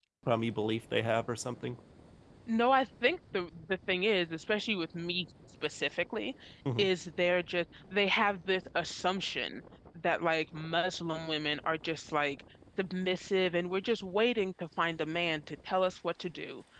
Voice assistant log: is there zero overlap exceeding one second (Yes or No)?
Yes